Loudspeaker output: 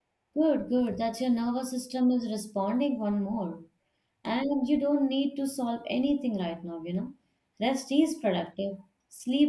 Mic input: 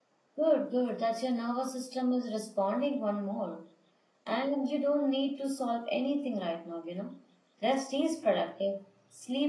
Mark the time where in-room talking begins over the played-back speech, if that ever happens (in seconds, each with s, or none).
none